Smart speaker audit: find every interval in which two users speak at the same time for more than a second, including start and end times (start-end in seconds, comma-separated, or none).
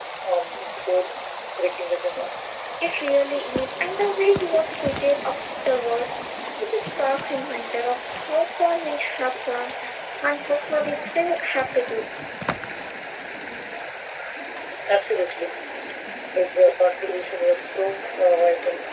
none